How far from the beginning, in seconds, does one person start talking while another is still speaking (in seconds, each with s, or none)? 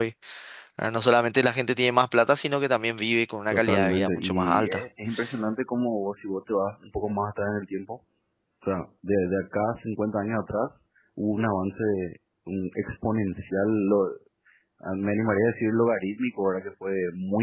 3.5 s